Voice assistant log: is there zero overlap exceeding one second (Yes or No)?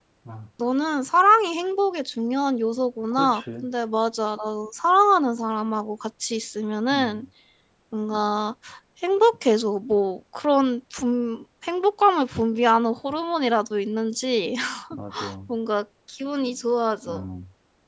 Yes